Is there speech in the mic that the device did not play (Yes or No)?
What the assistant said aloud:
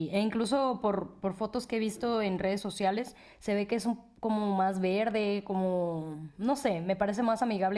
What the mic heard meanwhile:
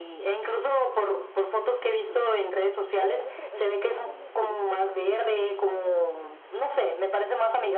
Yes